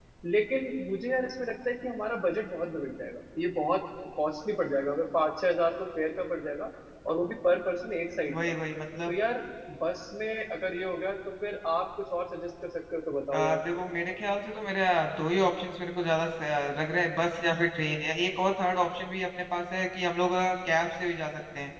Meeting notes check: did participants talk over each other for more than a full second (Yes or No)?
No